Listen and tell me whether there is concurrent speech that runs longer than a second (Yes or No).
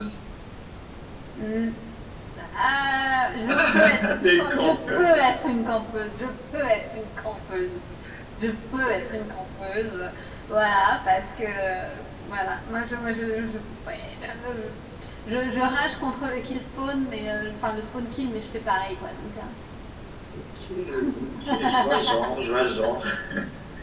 Yes